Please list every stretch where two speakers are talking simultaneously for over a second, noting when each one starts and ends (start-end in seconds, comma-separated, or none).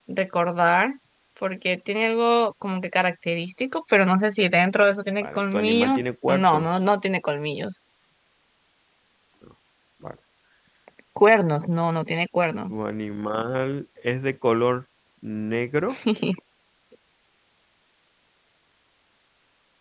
5.2-6.7